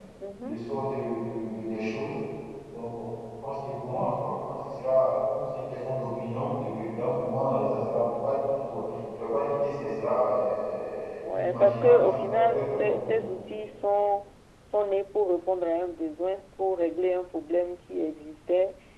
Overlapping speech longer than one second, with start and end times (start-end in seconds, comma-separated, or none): 11.3-13.3